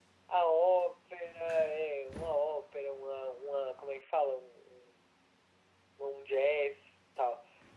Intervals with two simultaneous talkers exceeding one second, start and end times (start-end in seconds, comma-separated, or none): none